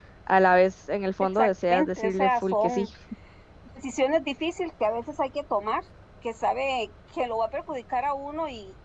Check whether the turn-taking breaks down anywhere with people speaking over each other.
Yes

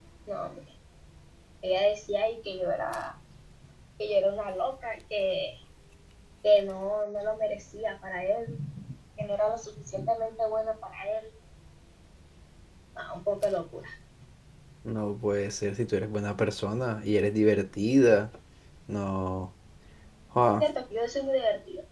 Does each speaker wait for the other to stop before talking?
Yes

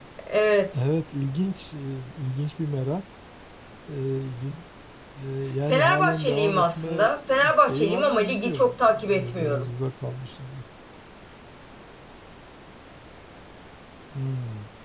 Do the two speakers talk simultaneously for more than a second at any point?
Yes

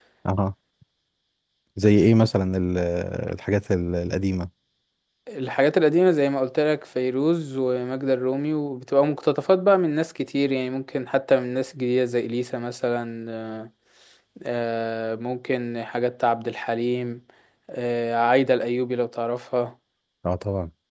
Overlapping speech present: No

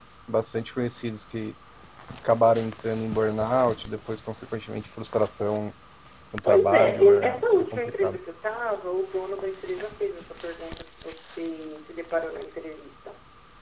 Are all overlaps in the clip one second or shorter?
No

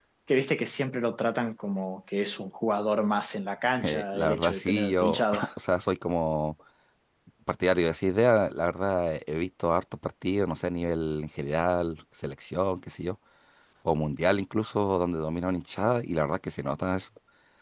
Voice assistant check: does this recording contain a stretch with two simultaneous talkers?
Yes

